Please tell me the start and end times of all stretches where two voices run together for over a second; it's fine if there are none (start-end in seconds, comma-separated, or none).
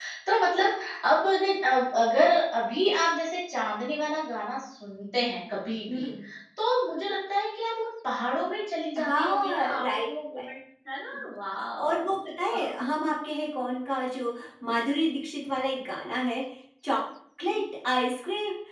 9.0-10.4